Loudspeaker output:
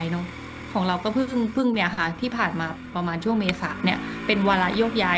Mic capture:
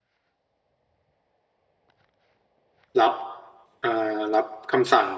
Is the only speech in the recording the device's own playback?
No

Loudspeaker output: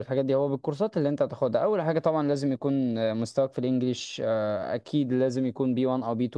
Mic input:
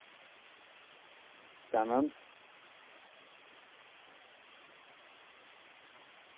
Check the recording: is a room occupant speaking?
Yes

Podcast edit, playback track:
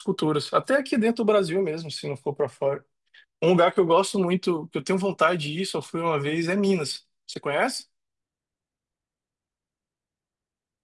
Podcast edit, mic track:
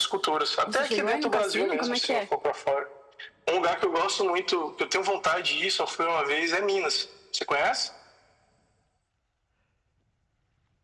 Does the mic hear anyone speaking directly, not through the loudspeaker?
Yes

